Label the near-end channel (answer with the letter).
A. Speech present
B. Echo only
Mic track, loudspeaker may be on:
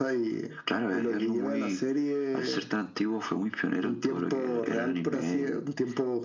B